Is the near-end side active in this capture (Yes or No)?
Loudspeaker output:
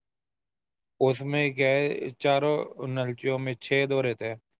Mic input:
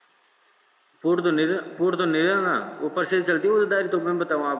Yes